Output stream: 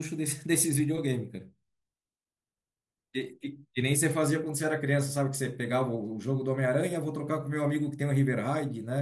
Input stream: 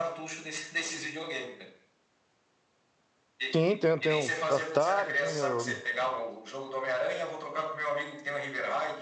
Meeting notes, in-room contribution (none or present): present